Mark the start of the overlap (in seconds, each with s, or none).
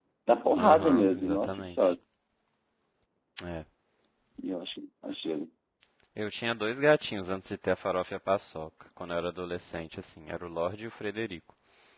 0.5 s